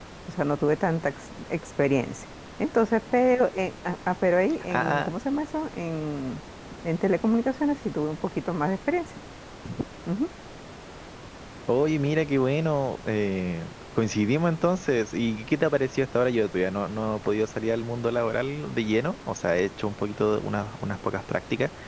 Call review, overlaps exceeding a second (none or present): none